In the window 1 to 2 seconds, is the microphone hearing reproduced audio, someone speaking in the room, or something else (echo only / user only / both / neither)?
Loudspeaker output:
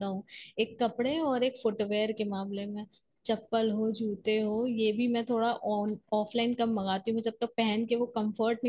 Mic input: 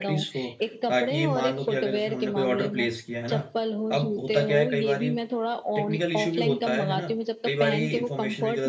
both